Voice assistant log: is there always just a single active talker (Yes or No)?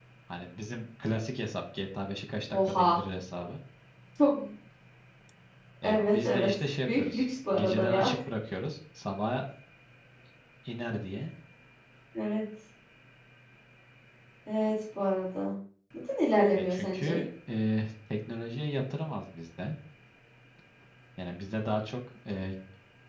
No